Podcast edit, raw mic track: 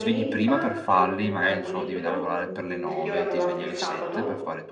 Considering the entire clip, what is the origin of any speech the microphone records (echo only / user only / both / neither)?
both